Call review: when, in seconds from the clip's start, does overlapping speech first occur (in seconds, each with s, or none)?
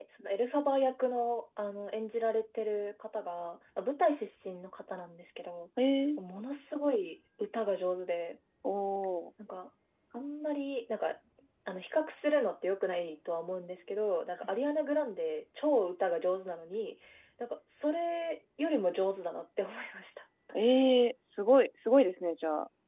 none